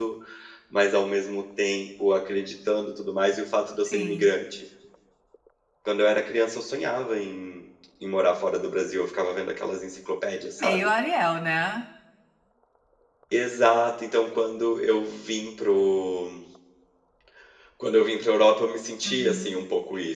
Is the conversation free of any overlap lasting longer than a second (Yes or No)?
Yes